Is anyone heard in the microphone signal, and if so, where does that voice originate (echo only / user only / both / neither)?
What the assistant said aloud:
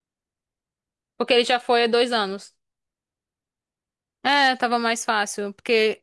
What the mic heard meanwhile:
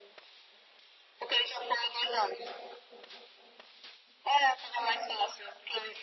echo only